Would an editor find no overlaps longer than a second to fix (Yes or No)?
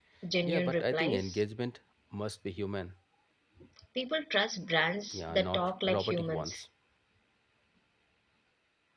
No